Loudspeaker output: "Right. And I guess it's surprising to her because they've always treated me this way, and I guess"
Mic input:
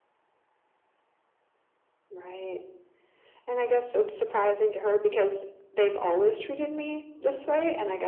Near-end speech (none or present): none